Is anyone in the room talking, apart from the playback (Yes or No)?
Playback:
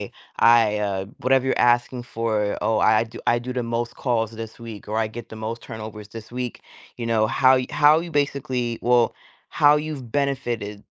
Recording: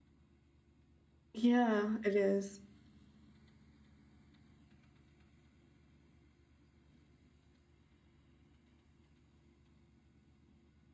Yes